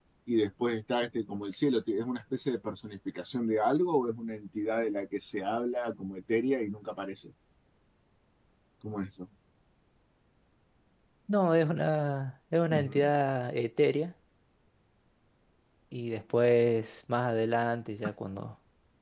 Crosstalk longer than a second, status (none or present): none